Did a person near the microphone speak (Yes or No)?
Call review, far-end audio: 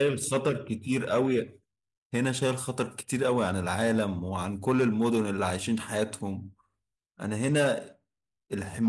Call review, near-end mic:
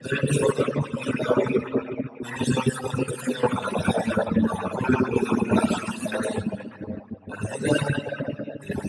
No